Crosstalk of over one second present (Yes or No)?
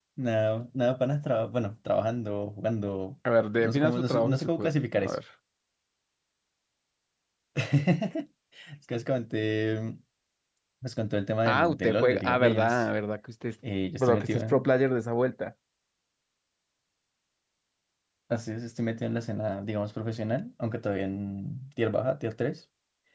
Yes